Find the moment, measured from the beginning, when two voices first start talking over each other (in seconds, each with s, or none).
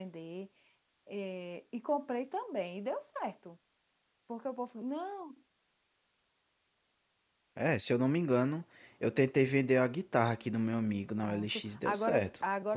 11.2 s